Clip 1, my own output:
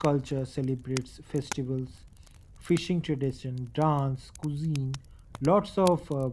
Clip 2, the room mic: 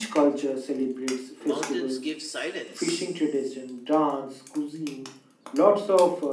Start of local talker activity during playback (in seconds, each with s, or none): 1.4 s